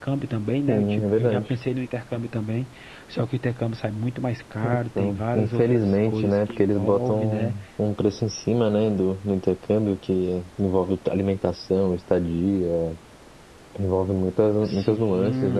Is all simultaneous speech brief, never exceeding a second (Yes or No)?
No